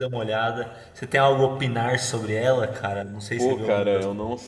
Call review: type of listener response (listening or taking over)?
taking over